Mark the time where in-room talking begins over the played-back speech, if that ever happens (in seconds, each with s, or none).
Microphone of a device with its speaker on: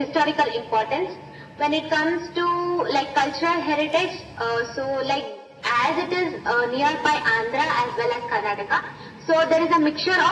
none